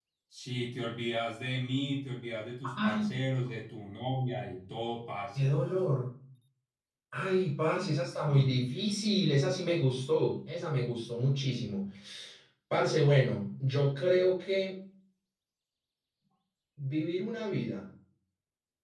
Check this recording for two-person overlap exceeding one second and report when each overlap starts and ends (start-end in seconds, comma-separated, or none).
none